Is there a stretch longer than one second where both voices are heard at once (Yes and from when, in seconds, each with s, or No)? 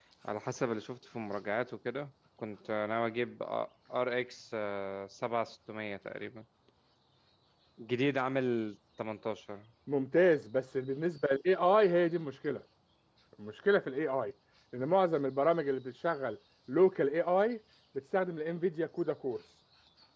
No